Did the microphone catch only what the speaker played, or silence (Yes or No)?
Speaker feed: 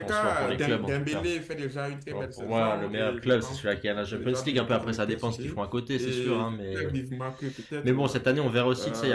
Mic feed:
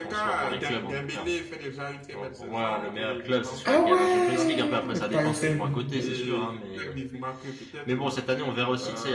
No